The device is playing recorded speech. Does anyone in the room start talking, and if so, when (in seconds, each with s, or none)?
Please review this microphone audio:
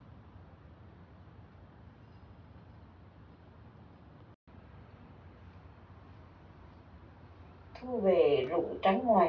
7.7 s